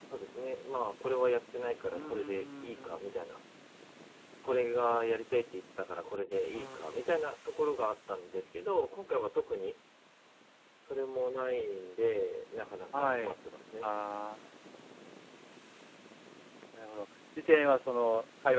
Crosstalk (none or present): present